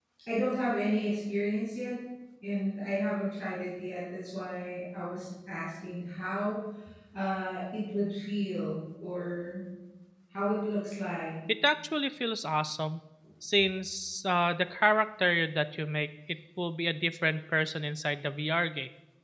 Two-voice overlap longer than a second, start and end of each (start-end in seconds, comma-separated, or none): none